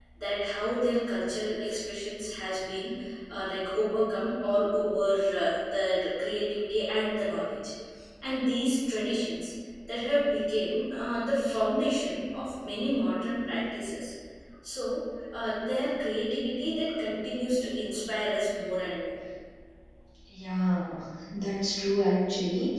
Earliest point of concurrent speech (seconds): none

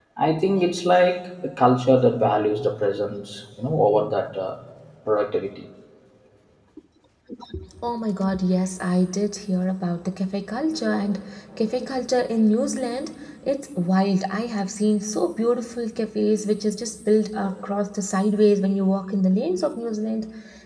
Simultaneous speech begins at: none

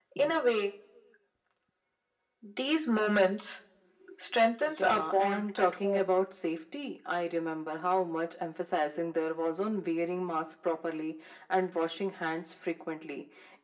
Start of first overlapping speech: 4.8 s

